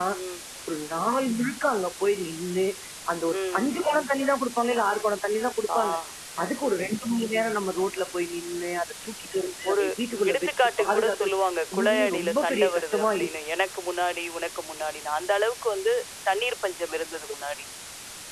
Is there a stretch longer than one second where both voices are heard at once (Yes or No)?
Yes